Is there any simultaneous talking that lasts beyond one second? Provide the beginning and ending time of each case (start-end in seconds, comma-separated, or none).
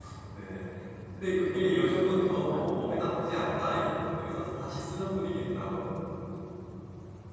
1.1-2.8